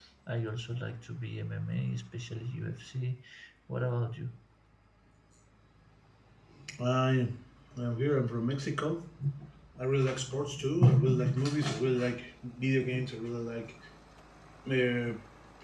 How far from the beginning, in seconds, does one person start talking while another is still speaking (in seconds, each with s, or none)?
none